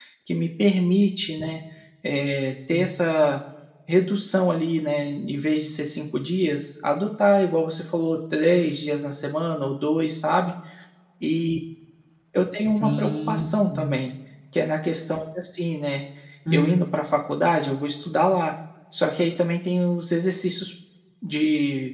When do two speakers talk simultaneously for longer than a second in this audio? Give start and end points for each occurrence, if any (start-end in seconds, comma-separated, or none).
12.8-14.0